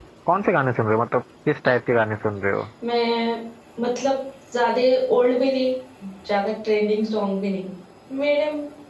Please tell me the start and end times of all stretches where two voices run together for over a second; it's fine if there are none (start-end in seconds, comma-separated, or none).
none